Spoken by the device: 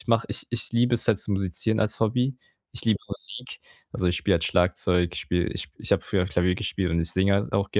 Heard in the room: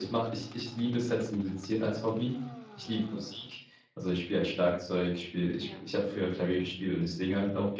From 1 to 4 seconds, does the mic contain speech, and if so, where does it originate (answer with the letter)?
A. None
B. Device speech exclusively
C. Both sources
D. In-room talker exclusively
B